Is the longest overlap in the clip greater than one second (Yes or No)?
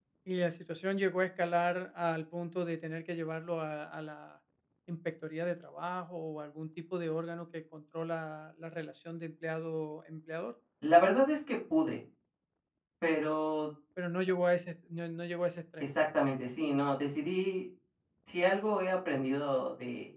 No